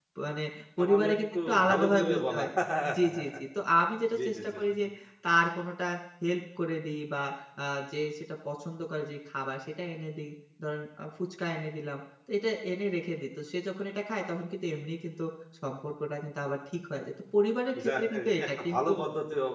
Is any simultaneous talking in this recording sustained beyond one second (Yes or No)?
Yes